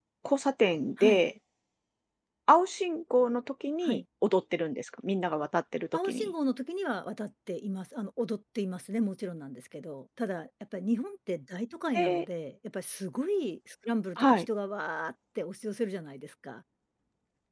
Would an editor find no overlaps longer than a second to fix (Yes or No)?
Yes